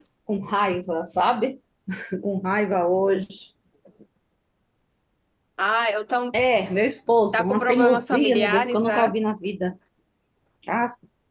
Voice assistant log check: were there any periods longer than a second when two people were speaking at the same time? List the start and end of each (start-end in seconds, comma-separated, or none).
7.3-9.1